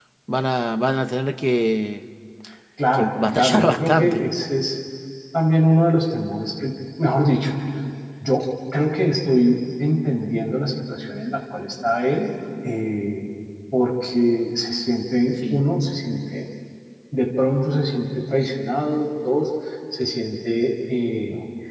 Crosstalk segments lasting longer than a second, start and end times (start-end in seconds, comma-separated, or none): 2.9-4.2